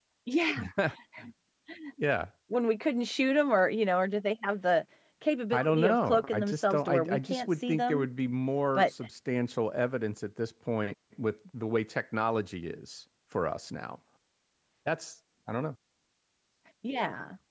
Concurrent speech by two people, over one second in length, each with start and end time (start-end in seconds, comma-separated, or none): 5.5-8.1